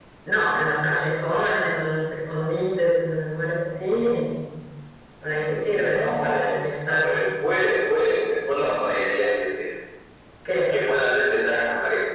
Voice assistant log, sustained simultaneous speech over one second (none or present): present